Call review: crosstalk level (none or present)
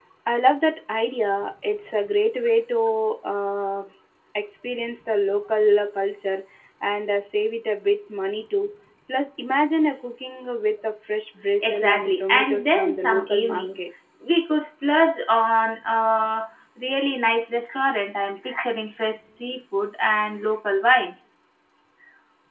present